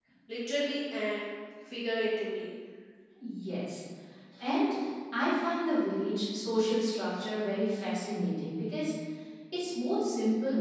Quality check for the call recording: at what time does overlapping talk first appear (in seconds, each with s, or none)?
none